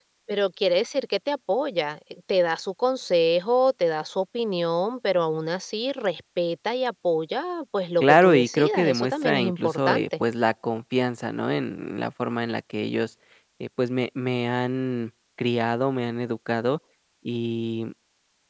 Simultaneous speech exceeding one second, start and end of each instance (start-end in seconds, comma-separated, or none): 8.0-10.1